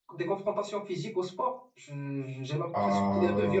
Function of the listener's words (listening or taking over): taking over